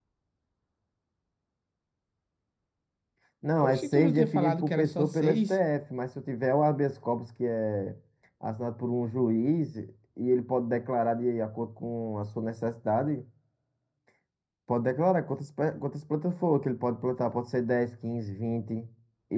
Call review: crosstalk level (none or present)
present